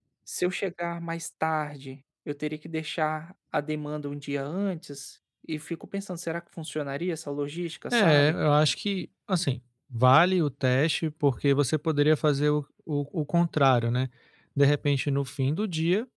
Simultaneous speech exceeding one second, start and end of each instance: none

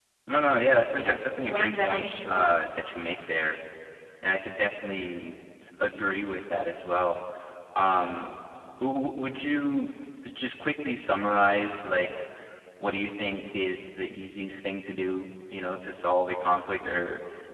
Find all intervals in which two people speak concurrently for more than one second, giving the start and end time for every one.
1.0-2.7

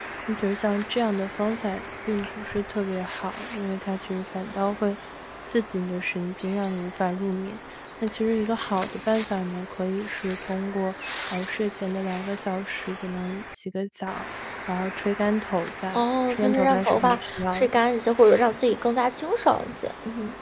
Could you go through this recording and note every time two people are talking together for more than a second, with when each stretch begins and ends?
15.9-17.7

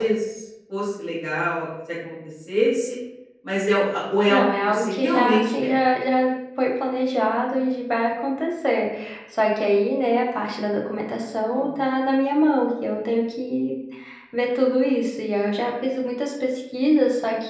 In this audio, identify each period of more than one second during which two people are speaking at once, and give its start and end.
4.3-5.7

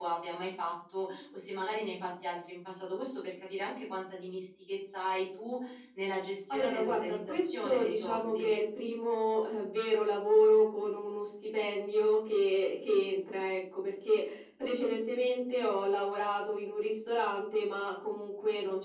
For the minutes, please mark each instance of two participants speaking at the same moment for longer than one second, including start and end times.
6.5-8.5

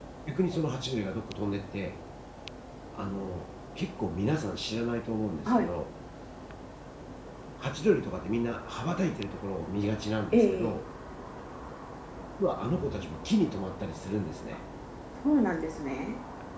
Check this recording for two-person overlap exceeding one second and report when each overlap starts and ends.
none

